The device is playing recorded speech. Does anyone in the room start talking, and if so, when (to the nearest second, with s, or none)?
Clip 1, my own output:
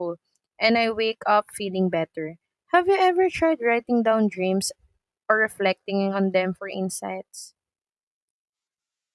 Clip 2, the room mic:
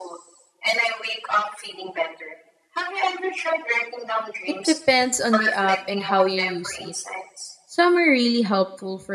4 s